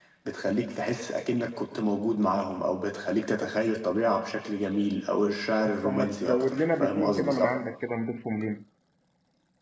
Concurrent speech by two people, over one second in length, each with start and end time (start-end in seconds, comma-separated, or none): 5.8-7.5